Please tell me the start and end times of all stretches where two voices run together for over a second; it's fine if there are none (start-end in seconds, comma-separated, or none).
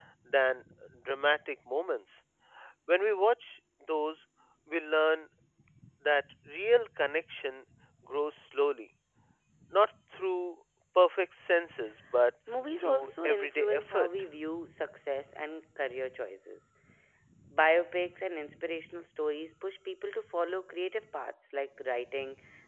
12.8-14.1